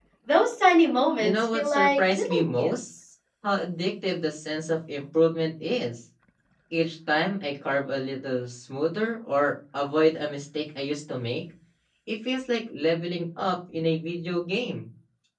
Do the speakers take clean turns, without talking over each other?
No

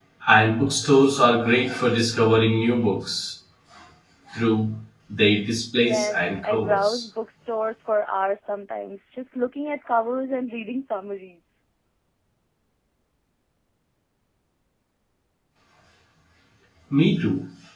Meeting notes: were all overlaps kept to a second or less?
No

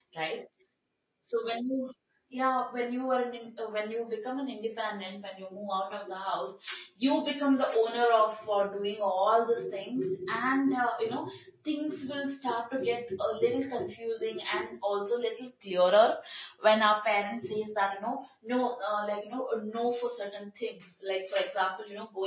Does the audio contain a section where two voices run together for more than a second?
No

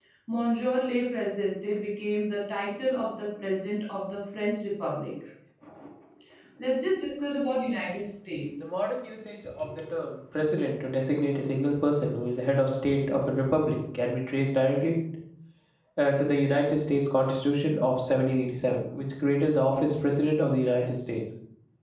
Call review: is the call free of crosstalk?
Yes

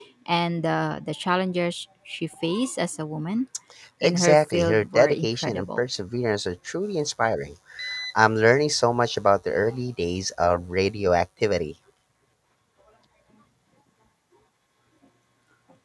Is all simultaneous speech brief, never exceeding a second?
No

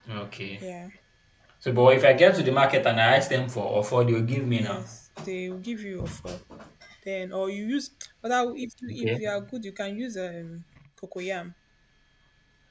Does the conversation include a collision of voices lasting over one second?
No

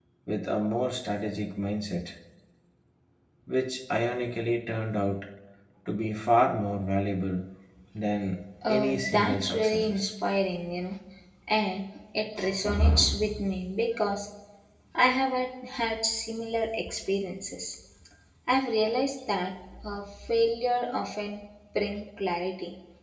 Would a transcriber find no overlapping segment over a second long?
No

